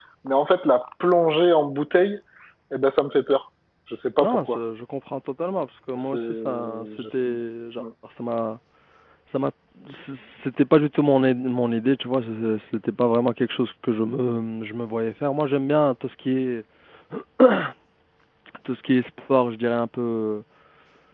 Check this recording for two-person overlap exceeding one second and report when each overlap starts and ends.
6.0-7.3

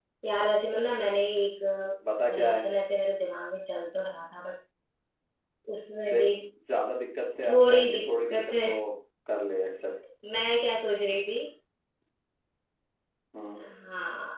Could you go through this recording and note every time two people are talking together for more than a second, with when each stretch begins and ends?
7.5-8.7

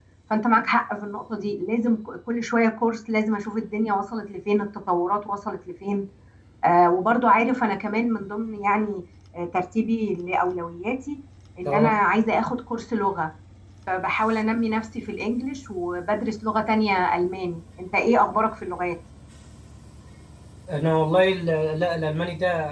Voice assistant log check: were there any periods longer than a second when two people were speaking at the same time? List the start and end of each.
none

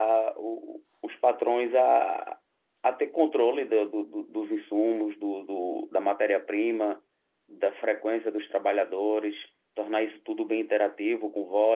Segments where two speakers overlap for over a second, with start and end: none

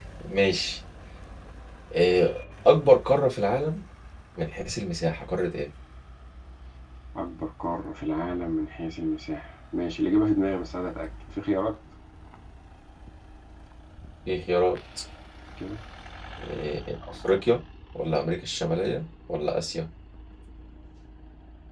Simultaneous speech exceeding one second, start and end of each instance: none

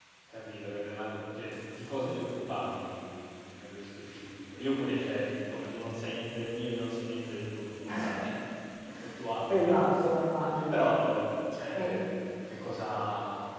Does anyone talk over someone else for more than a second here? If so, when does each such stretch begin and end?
none

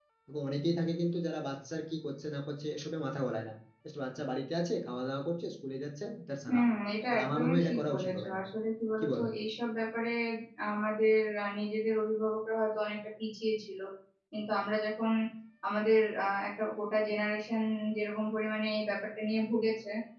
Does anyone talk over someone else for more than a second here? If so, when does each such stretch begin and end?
7.1-8.4

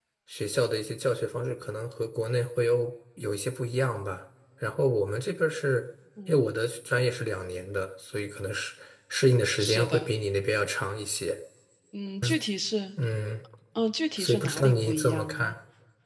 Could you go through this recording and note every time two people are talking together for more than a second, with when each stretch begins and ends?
14.2-15.6

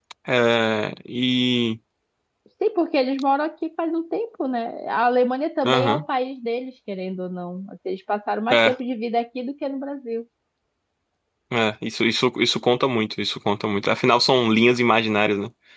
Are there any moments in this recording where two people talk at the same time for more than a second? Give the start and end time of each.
none

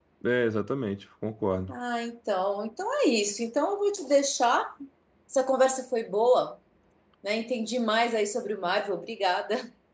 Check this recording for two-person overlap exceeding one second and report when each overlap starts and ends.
none

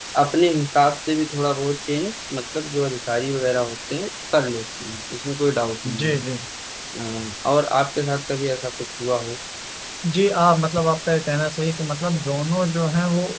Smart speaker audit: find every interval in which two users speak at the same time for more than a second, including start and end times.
none

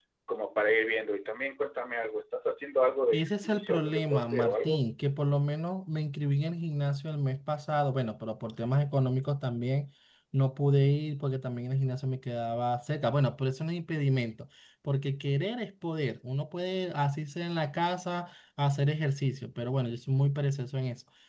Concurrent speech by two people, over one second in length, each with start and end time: 3.1-4.8

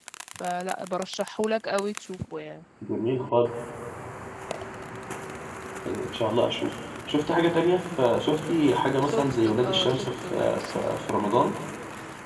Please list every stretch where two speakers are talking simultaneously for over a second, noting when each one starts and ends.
9.1-10.9

